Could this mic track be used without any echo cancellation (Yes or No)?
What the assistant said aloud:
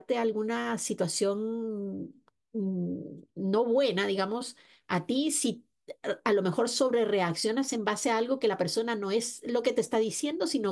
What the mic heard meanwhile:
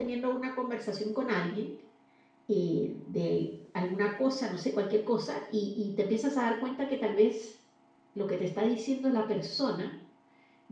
Yes